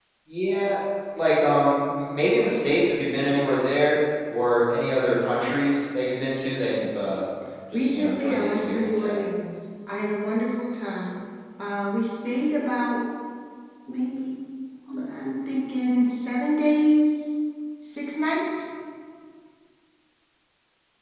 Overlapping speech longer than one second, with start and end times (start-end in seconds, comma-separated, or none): 7.7-9.2